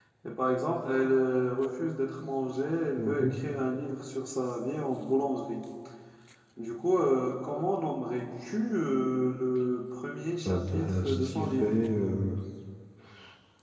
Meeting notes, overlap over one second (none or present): present